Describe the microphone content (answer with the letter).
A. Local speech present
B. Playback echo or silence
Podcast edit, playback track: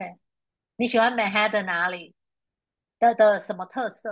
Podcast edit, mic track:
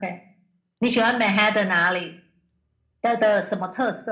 B